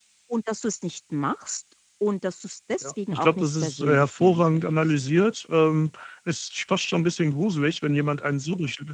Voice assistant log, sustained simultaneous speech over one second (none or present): present